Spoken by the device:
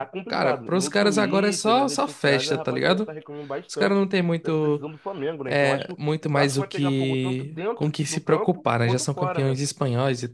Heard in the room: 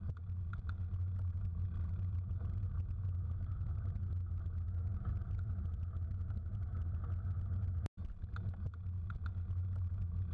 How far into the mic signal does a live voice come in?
none

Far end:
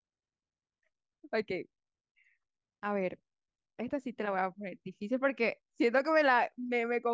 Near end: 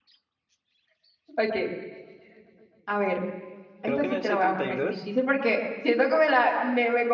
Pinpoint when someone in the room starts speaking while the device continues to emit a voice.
4 s

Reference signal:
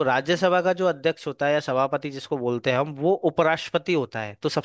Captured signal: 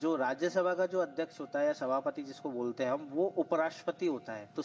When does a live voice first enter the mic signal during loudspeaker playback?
none

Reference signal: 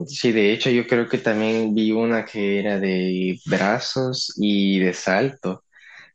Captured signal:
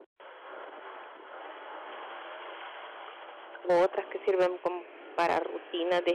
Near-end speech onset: 4 s

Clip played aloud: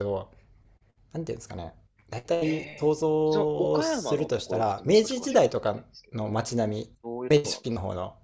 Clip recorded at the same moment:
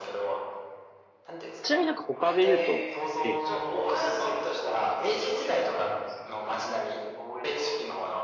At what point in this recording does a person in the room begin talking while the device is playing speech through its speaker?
2 s

